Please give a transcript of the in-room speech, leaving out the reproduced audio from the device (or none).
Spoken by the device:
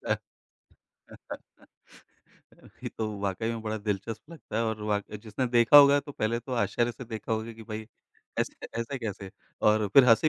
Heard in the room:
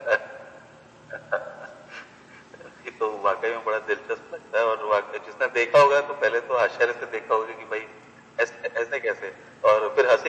none